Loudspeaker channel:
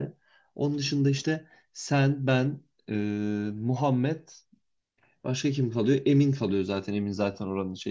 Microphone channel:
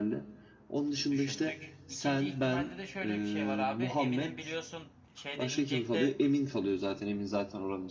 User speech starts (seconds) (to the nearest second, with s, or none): 1 s